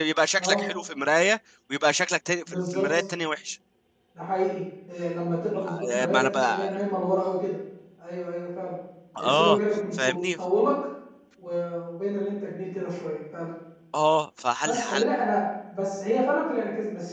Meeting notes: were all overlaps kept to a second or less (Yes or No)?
No